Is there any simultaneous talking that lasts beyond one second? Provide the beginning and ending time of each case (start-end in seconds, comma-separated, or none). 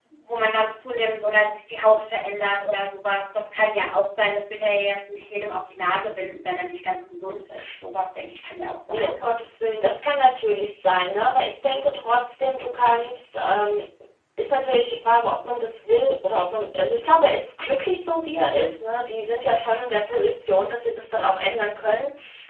none